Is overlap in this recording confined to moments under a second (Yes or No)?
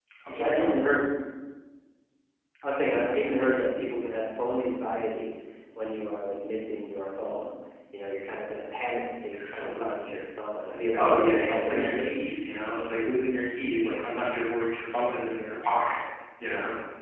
No